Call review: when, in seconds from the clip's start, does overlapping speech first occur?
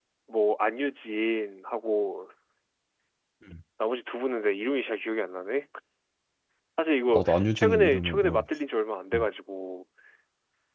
7.1 s

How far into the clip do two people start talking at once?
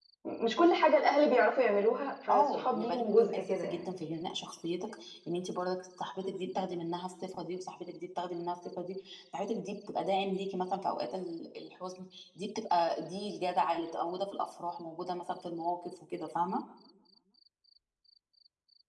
2.3 s

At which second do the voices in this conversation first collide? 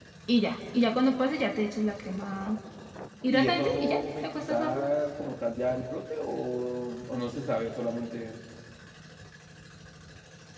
3.3 s

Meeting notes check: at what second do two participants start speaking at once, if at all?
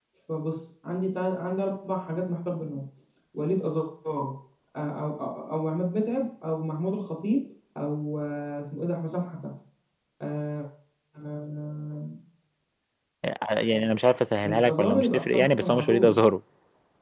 14.4 s

